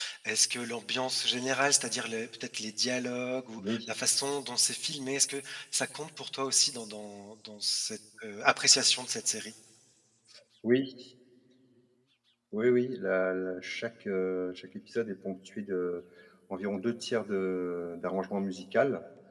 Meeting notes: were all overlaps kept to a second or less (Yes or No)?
Yes